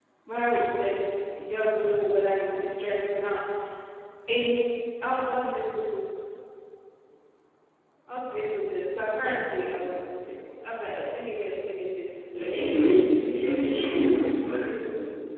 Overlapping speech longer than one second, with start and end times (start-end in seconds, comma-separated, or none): 12.4-14.2